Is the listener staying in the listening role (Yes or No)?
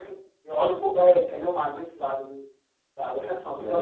Yes